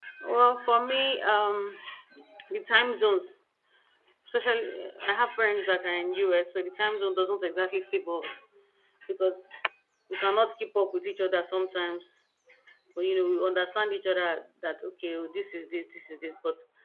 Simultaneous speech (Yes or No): No